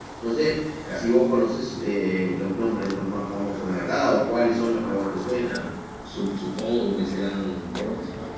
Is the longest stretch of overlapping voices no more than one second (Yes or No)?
Yes